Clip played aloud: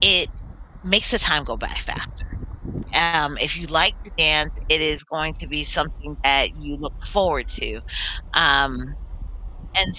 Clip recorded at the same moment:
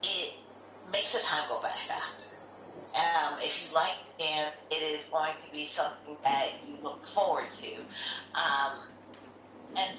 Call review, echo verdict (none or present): present